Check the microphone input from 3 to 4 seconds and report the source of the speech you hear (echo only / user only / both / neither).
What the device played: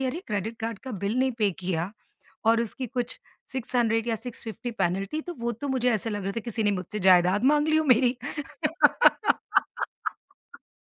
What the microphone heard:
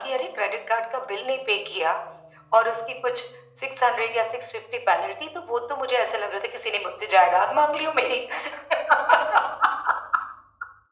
echo only